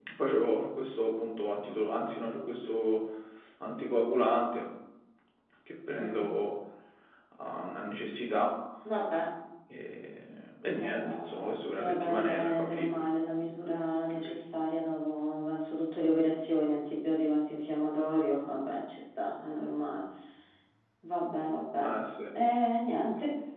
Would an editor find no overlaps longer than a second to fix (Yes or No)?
No